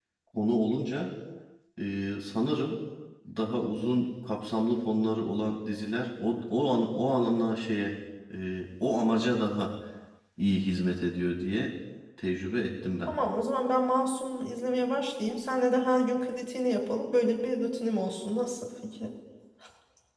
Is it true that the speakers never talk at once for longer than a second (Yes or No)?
Yes